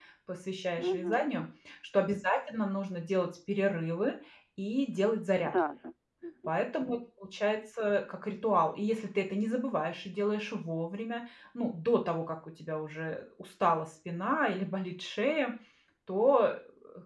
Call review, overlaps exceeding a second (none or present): none